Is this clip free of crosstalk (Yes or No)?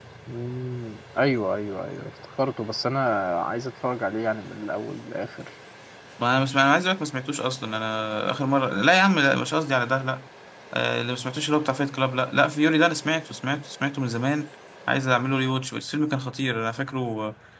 Yes